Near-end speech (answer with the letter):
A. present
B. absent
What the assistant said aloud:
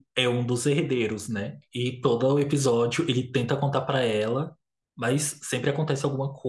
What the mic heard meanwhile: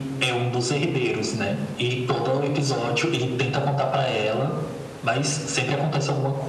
B